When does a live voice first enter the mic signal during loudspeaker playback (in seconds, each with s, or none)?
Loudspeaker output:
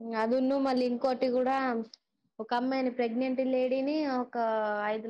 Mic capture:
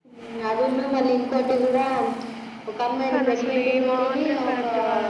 3.1 s